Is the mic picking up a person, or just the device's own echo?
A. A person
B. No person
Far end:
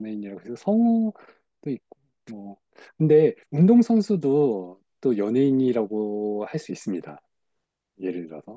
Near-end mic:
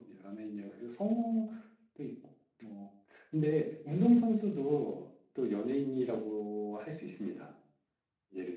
B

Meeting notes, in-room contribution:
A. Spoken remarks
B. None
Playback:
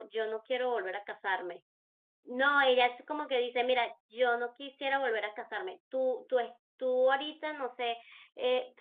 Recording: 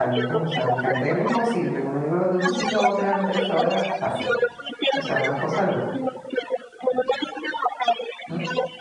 A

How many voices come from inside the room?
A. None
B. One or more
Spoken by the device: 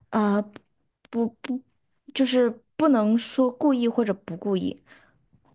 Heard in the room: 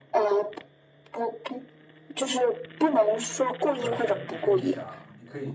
B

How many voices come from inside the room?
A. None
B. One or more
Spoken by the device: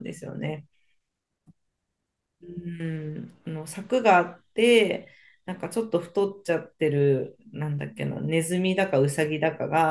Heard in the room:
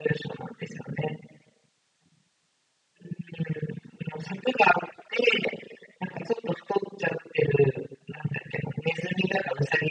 A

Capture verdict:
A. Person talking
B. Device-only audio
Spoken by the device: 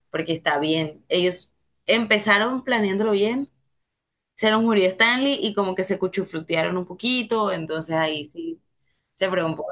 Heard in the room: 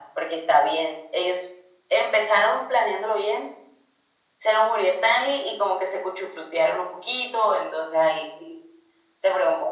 B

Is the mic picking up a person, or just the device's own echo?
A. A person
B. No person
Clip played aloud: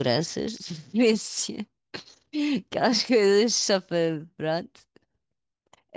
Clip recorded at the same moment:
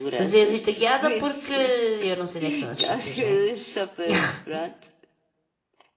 A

